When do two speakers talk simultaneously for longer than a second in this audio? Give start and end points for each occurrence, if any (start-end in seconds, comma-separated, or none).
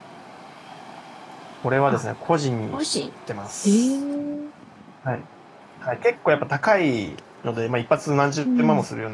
none